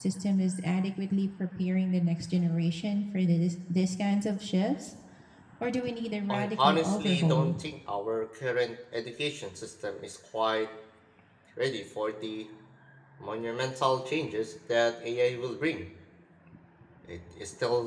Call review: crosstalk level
present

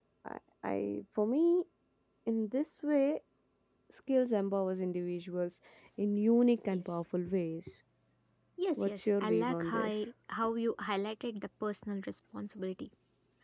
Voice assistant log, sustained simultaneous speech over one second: present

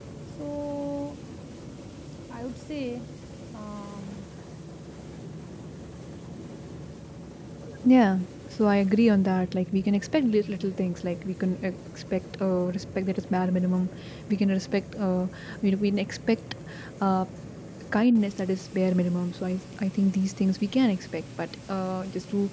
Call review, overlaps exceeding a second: none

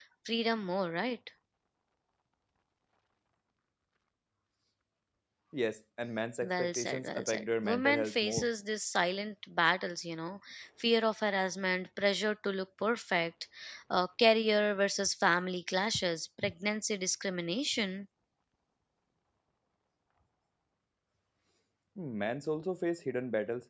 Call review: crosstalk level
present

